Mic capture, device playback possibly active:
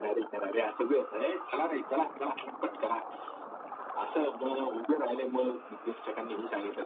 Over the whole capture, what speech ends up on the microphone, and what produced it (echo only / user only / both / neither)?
echo only